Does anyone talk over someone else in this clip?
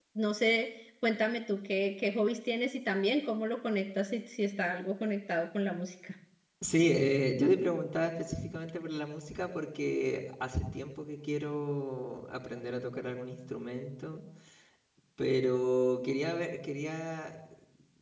No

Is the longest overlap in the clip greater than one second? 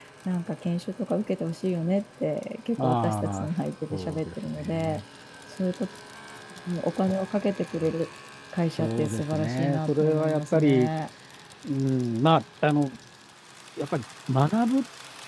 Yes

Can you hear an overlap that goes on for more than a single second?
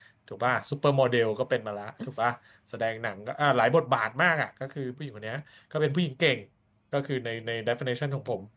No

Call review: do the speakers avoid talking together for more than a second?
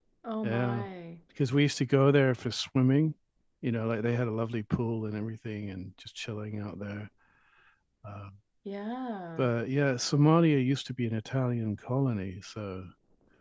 Yes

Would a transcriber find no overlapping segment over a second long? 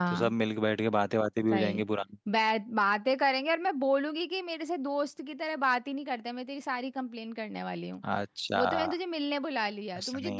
Yes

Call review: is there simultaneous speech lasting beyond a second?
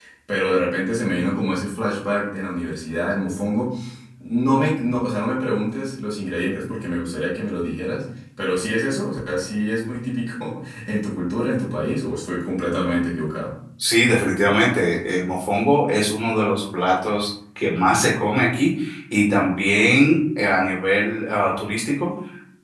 No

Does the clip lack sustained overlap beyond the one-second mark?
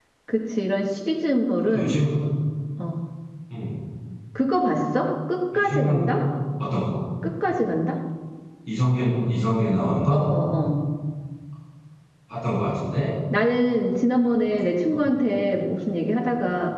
Yes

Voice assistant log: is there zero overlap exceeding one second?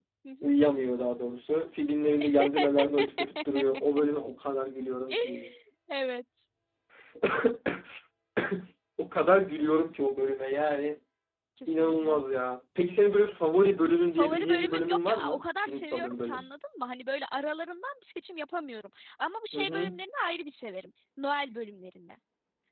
No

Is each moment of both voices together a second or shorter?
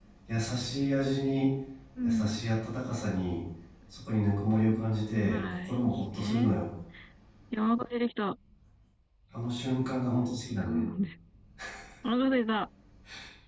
No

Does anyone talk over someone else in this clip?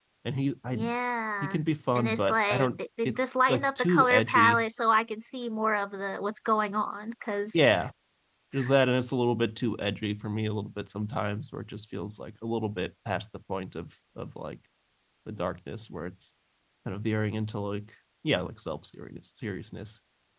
Yes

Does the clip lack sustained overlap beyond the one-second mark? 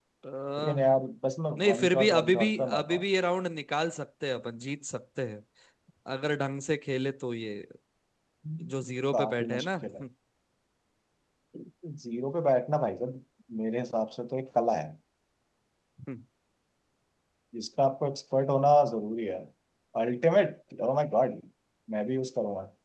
No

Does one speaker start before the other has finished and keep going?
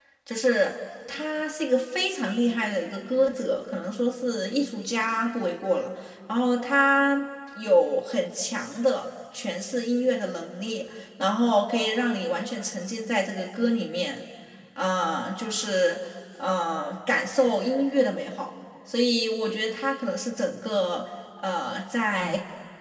No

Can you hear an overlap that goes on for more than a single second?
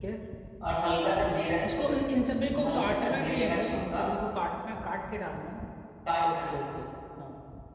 Yes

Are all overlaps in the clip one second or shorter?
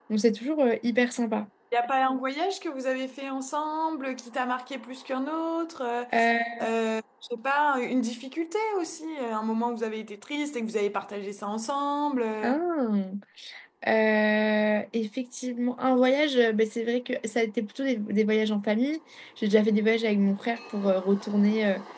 Yes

